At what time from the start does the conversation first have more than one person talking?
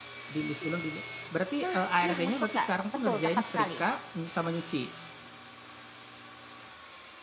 1.6 s

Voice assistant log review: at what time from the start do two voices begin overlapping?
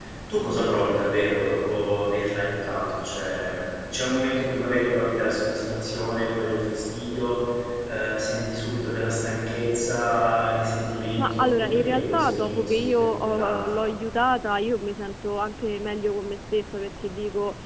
11.2 s

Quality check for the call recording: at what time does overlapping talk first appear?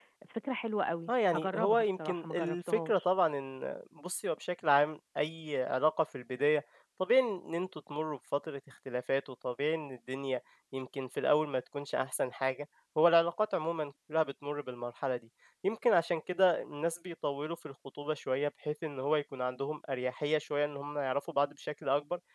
1.1 s

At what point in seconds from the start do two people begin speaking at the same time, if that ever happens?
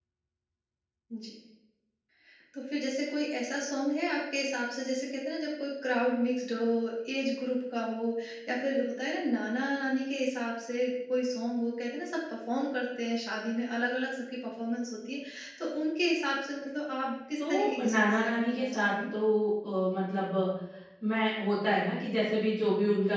17.4 s

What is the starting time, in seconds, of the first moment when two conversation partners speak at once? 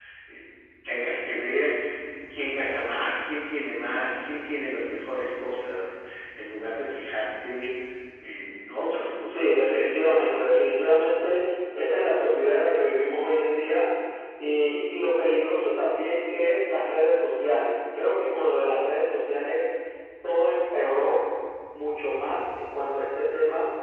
9.3 s

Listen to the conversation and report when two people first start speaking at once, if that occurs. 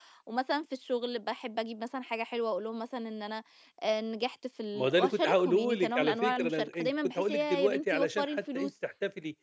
4.8 s

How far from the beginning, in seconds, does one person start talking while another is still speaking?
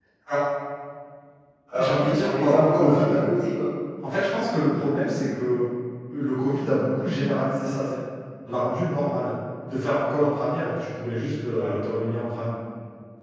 1.8 s

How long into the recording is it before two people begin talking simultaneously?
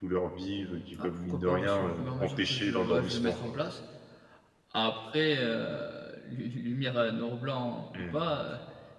1.0 s

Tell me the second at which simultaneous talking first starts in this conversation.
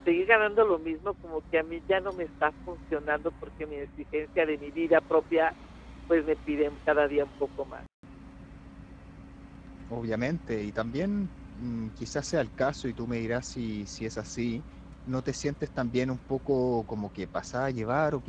none

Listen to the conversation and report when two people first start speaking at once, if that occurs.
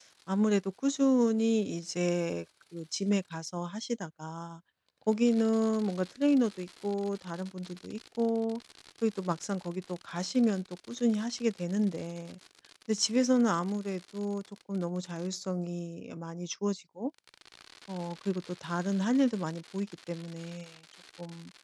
none

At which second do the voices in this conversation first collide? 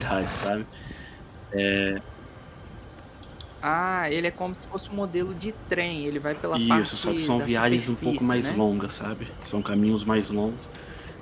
6.5 s

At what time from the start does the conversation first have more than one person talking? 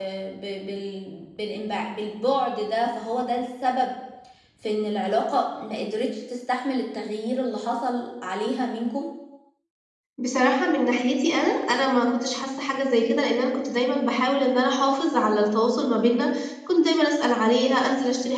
none

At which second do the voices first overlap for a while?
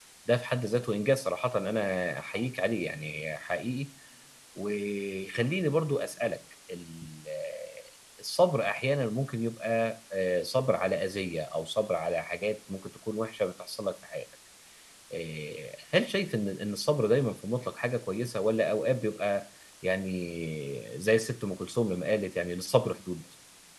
none

